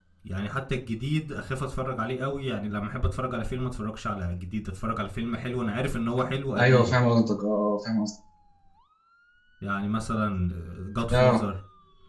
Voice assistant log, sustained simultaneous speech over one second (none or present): none